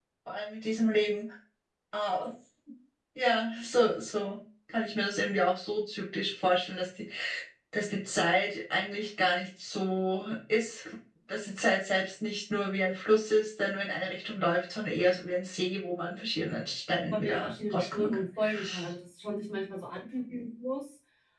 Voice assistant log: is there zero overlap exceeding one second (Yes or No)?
No